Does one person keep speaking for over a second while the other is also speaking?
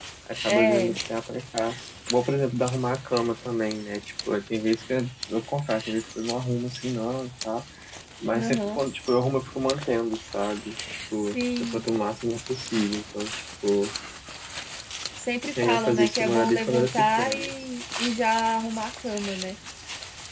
Yes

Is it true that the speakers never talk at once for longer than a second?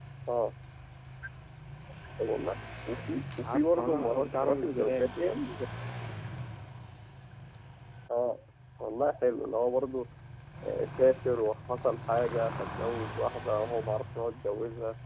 No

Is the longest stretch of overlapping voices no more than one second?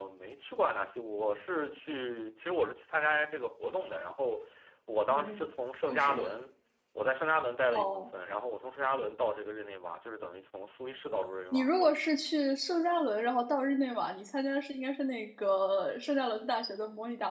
Yes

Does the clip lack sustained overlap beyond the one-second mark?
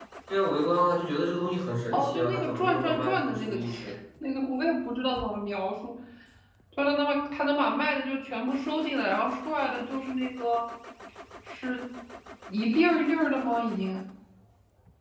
No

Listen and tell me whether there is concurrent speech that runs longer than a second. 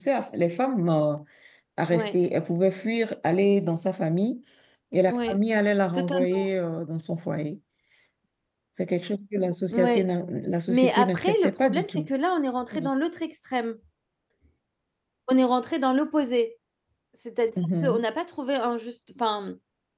Yes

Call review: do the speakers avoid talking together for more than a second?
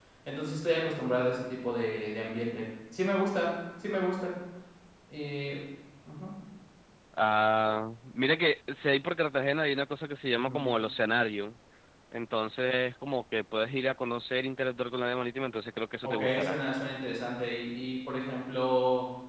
Yes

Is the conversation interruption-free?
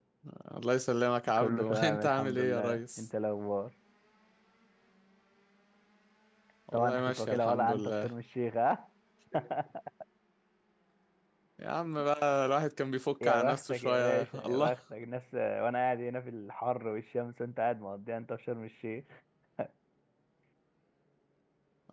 No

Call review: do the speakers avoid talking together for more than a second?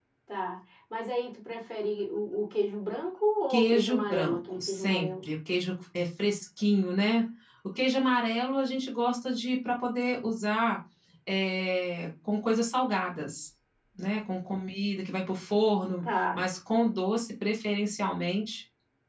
No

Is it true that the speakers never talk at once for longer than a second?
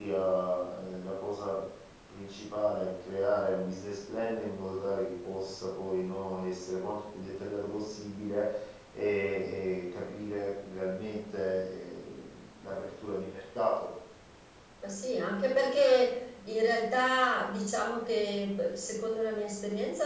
Yes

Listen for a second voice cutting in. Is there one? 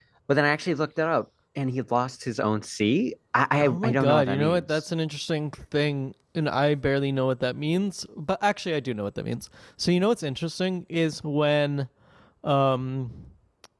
Yes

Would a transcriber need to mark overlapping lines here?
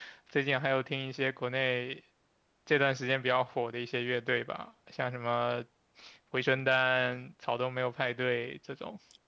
No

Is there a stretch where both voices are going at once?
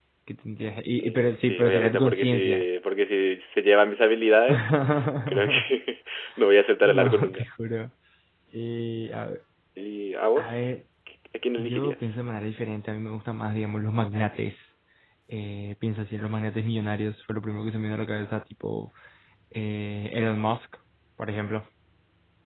Yes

